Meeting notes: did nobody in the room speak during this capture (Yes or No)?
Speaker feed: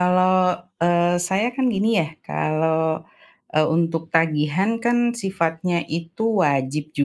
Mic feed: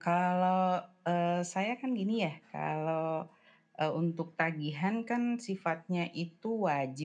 Yes